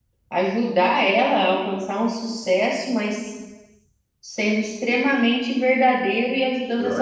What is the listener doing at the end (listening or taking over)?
taking over